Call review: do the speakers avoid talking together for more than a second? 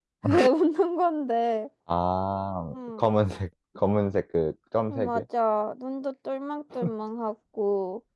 Yes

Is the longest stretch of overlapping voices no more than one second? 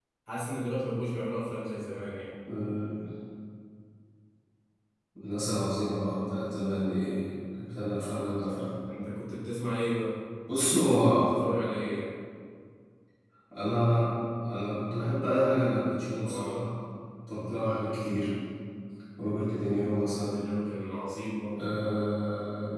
Yes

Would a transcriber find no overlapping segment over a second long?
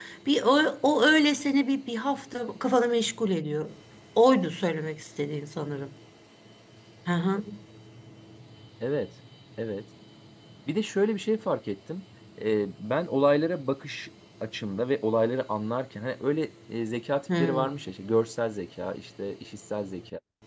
Yes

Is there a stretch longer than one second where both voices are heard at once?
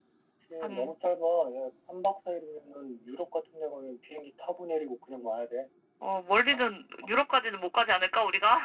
No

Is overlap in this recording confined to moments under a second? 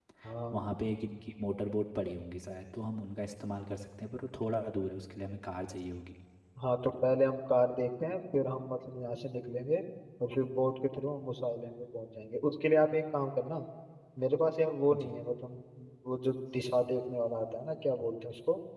Yes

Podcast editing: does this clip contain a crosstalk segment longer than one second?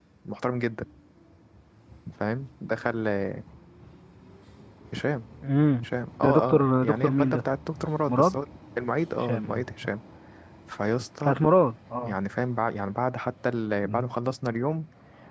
Yes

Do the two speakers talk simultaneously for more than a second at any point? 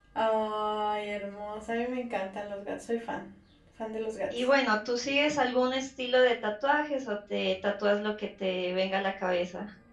No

